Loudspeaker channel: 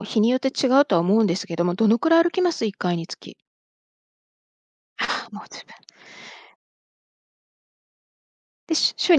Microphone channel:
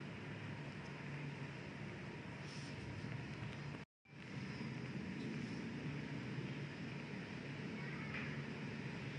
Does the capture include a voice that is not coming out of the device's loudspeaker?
No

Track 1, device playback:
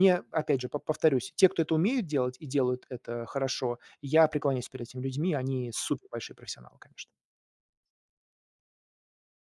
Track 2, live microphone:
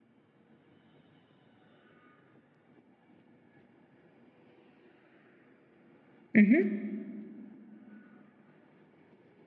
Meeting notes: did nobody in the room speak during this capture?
No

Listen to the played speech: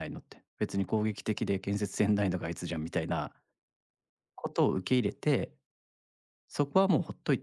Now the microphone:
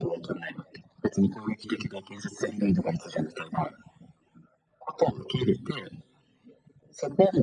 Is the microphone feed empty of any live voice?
Yes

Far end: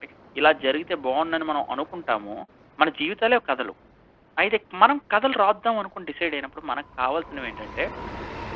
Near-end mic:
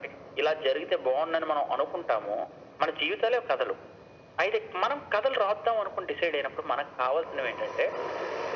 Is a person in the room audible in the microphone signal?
No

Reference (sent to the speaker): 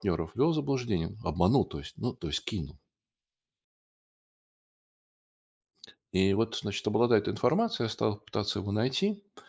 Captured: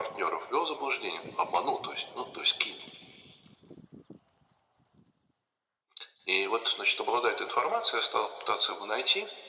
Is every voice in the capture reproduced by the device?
Yes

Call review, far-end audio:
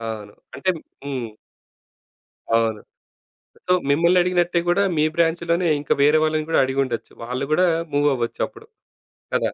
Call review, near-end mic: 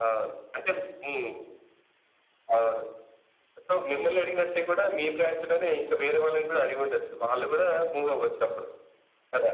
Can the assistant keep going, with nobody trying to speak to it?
Yes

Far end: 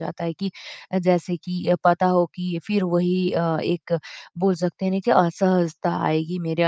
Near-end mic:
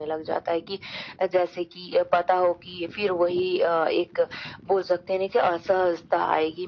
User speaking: No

